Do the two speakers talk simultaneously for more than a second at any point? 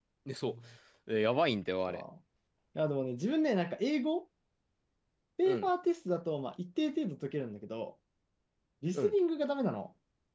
No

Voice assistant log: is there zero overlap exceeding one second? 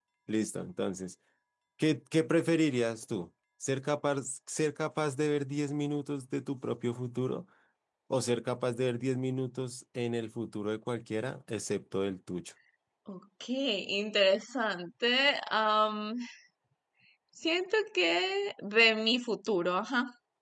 Yes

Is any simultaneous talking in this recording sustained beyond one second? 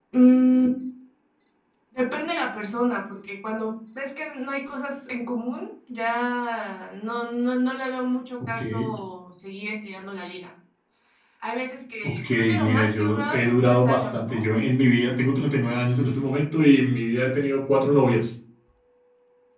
Yes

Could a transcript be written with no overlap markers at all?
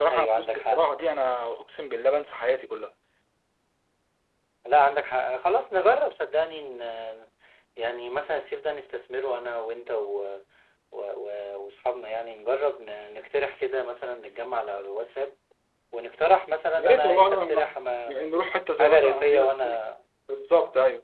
No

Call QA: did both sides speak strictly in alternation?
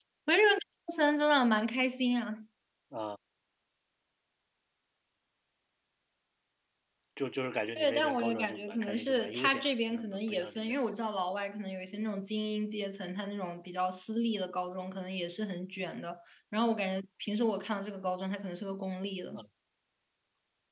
No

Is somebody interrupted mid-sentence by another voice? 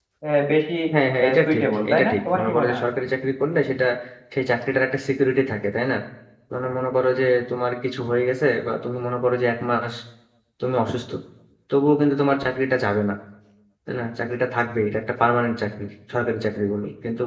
Yes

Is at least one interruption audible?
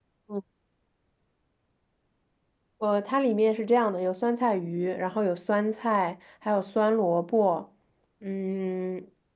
No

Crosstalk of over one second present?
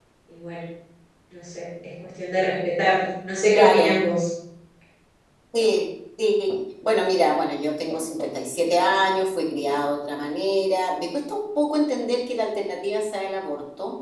No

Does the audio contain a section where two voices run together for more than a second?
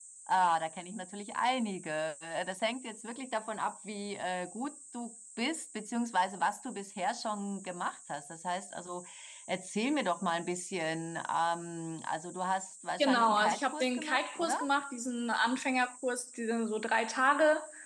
Yes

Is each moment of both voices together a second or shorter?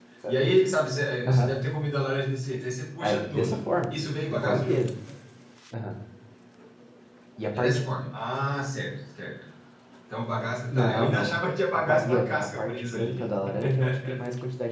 No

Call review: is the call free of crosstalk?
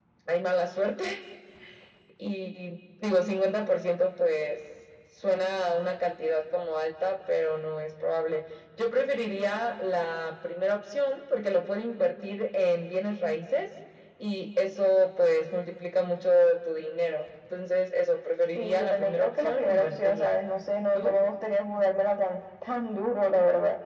No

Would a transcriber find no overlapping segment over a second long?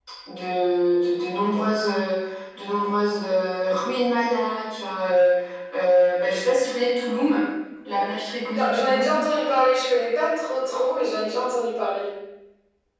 Yes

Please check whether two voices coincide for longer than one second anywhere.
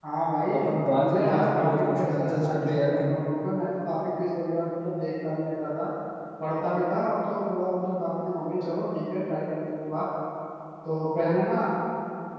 Yes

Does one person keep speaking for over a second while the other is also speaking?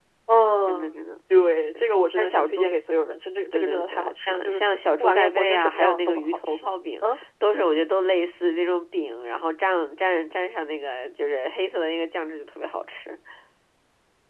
Yes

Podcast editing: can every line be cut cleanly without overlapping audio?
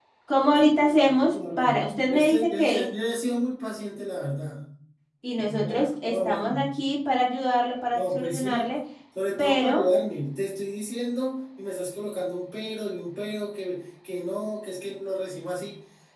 No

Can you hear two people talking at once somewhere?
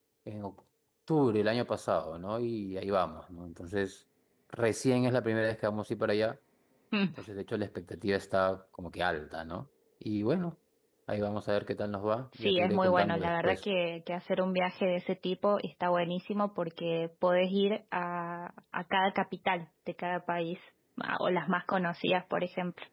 Yes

